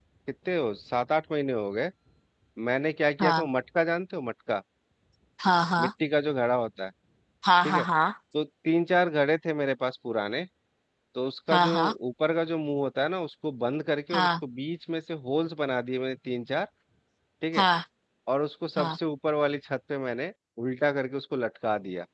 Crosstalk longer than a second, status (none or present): none